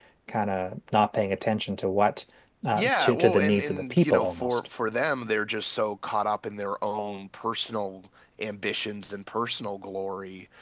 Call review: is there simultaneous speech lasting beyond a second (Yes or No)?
Yes